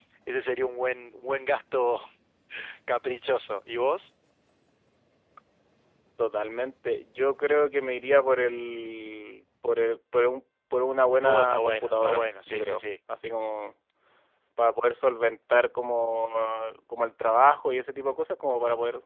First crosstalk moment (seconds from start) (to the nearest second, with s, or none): 11 s